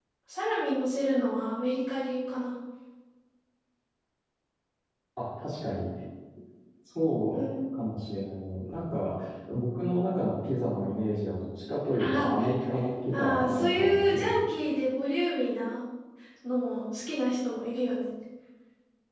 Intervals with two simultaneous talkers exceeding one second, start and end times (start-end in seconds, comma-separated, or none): 13.1-14.3